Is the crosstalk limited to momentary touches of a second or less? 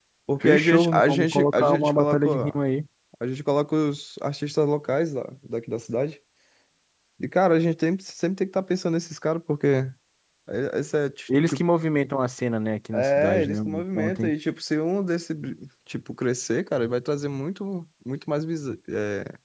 No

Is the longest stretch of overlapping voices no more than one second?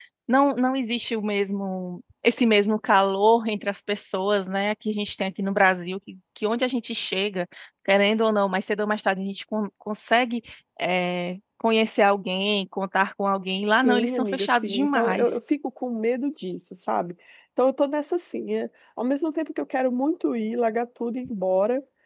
No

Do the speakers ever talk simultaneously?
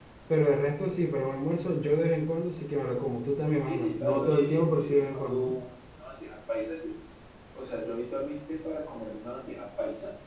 Yes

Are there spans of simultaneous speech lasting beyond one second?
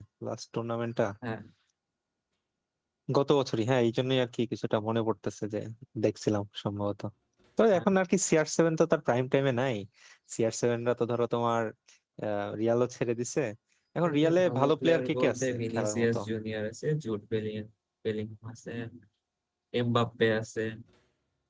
Yes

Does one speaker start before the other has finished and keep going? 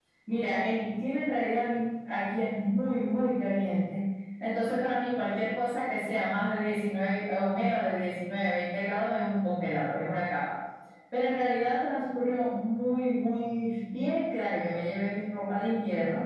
No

